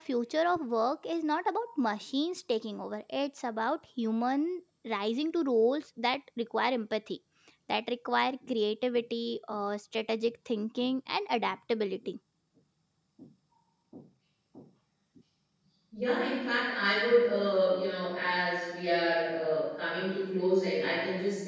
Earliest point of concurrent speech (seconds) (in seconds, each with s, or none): none